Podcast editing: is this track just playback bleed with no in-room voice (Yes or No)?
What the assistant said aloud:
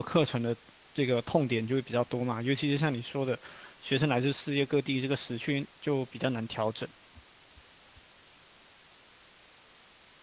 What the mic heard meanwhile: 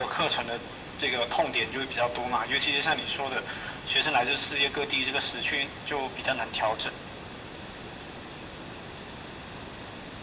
Yes